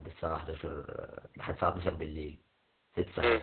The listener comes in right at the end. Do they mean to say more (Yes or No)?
Yes